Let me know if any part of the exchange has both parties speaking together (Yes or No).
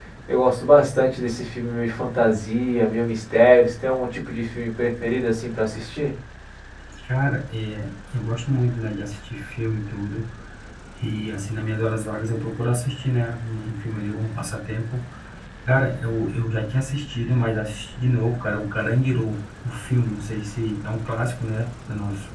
No